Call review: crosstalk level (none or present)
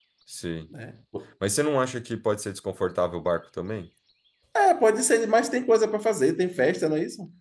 none